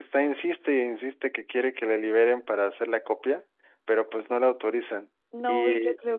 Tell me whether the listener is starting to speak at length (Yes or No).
Yes